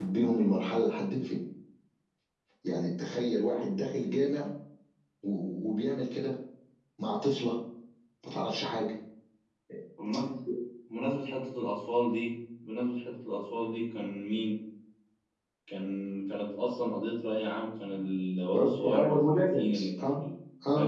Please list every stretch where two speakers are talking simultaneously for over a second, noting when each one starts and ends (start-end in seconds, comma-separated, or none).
18.5-20.1